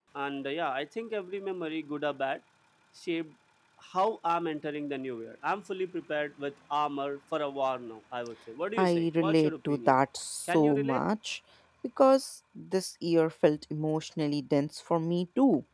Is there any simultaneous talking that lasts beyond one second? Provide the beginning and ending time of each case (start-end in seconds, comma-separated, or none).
8.8-10.0